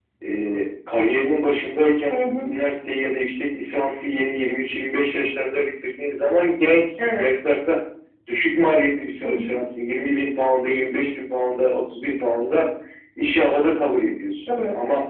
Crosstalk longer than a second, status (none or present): none